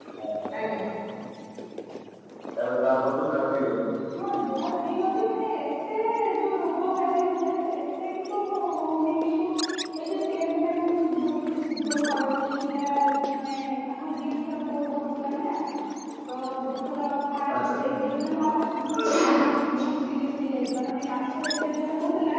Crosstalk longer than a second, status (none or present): none